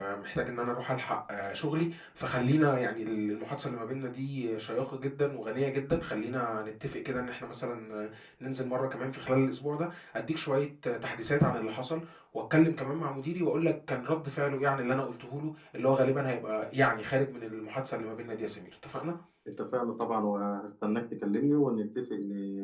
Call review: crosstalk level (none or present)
none